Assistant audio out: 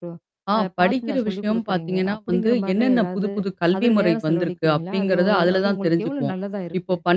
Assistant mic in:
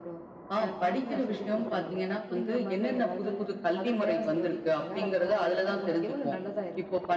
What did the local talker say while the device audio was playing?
none

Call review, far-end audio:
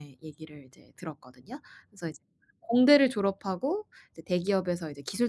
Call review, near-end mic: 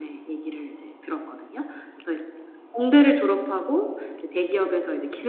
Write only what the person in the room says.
none

